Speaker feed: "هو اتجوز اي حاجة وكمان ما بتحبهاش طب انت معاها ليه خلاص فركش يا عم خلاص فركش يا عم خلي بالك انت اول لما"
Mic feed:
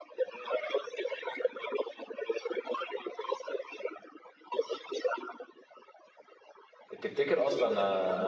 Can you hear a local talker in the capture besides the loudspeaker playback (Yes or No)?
Yes